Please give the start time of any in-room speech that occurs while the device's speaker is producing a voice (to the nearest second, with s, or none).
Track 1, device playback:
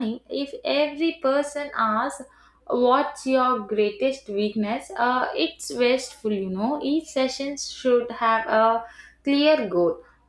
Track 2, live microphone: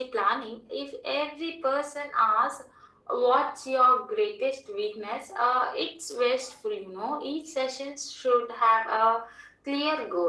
none